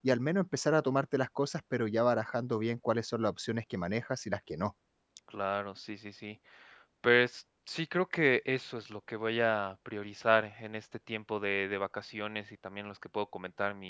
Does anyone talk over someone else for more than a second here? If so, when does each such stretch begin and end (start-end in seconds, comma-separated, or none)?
none